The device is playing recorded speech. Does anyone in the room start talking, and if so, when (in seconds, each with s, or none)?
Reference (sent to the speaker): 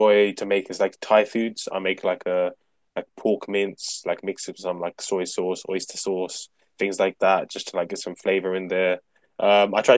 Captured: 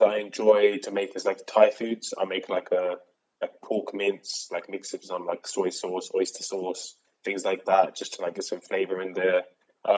none